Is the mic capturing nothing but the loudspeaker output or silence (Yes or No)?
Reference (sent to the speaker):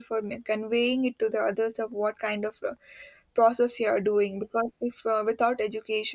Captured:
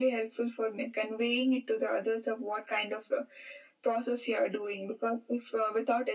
Yes